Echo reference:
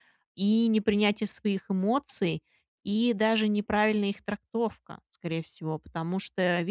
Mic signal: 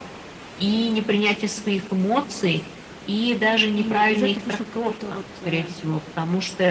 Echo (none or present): present